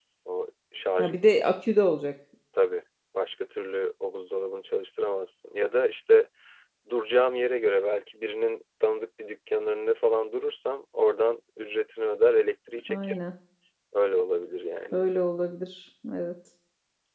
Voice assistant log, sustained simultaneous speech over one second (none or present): none